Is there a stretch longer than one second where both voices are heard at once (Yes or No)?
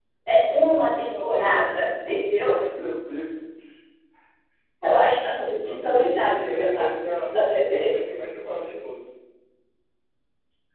Yes